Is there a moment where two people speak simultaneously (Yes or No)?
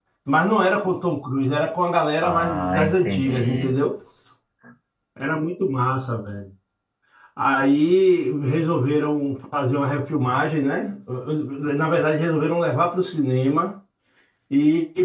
Yes